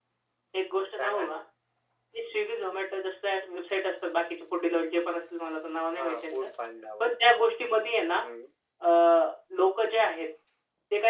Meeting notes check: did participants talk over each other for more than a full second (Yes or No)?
No